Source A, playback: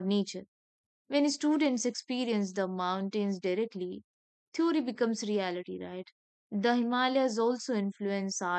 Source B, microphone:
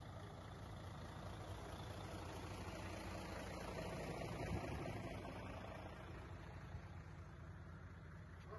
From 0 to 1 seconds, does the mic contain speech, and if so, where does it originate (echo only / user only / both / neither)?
neither